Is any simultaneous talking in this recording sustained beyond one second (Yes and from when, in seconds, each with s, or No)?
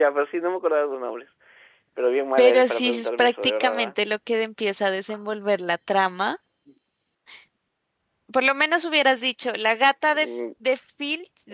Yes, from 2.4 s